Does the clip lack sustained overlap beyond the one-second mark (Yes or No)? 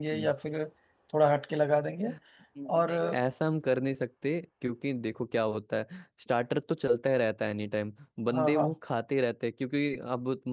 Yes